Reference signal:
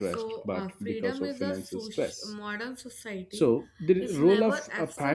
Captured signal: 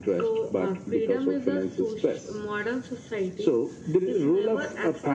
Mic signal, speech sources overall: echo only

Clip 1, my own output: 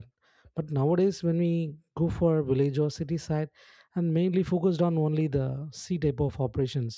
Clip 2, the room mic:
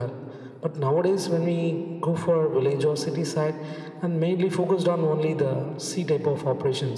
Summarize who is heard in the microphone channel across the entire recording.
echo only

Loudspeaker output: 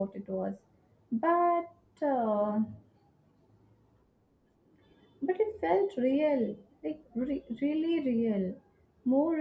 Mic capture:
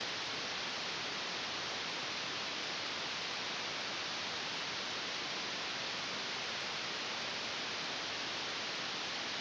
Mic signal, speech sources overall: neither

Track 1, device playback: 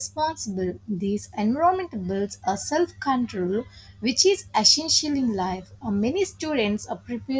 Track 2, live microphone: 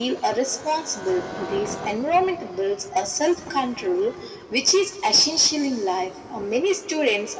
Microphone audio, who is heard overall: echo only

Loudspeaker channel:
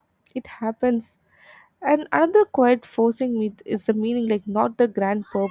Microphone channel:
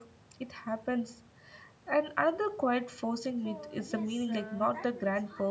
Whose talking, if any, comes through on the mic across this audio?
both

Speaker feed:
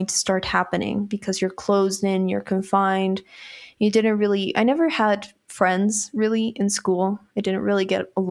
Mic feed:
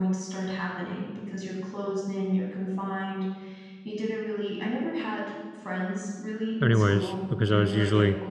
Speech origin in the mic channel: both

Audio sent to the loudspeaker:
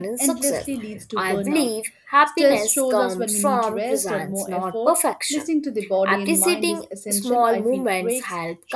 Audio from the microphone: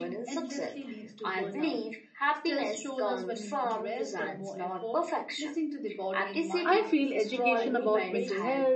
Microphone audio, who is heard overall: both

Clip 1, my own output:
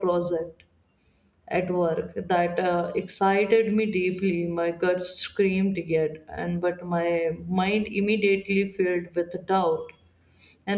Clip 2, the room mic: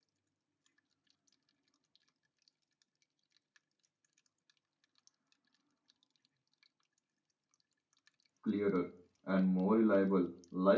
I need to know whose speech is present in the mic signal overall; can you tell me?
user only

